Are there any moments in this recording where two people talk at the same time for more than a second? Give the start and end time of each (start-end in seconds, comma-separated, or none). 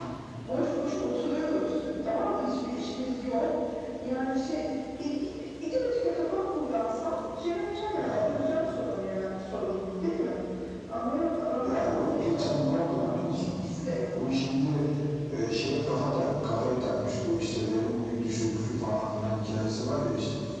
11.5-13.6